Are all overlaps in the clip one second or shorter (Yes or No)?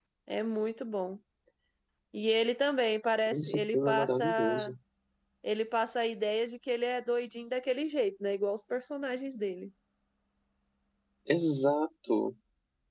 No